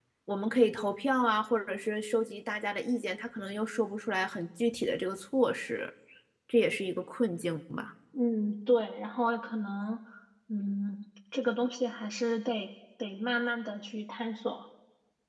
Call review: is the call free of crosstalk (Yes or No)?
Yes